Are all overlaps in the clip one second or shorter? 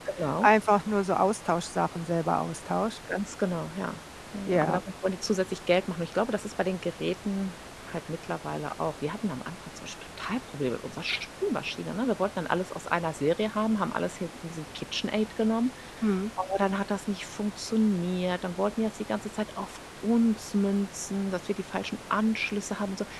Yes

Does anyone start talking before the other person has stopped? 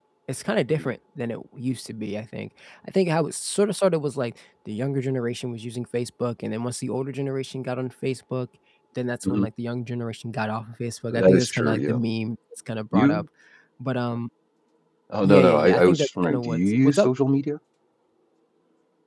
Yes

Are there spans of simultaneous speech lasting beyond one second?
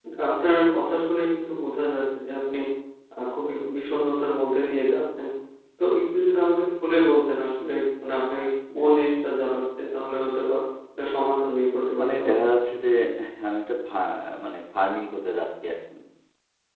No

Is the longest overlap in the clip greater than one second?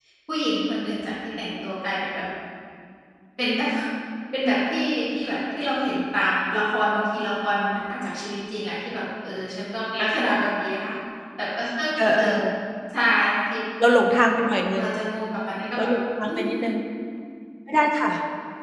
No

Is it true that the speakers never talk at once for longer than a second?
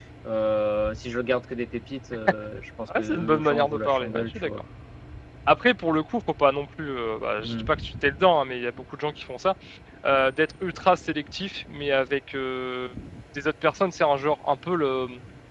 No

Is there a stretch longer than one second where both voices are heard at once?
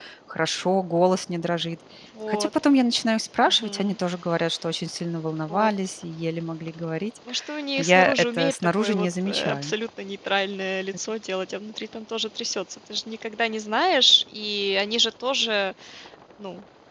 Yes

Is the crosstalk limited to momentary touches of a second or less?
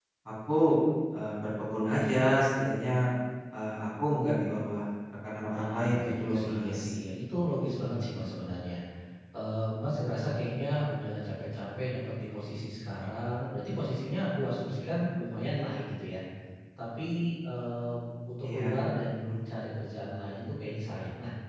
No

